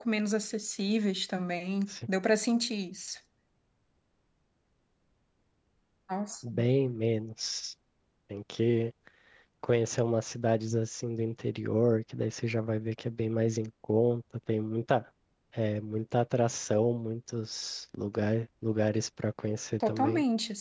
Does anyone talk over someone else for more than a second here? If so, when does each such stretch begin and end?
none

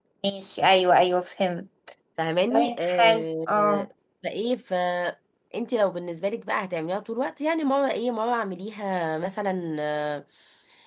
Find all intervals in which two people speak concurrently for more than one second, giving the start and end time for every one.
2.5-3.9

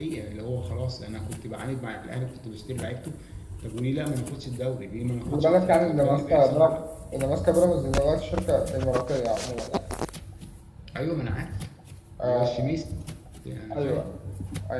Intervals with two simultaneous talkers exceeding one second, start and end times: 5.3-6.7

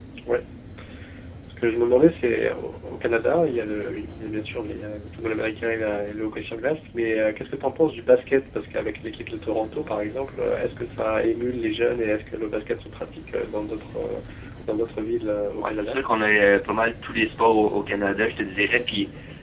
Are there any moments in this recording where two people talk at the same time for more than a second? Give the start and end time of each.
none

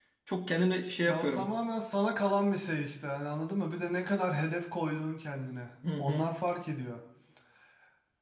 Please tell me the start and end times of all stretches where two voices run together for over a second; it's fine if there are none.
none

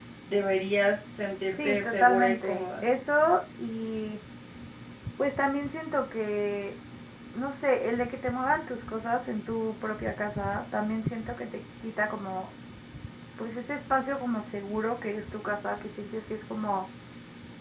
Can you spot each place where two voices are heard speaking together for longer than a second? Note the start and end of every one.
1.6-2.9

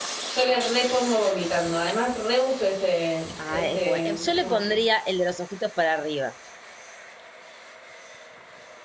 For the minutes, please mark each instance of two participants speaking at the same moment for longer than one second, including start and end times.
3.5-4.8

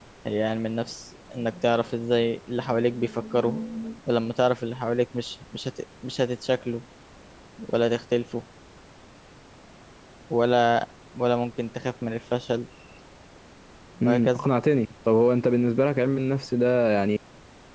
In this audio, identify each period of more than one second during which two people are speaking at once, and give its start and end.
none

